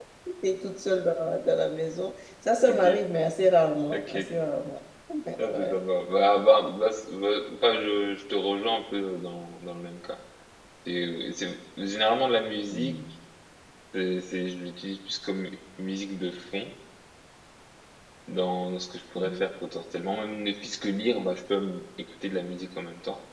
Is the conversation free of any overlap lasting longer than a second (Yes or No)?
Yes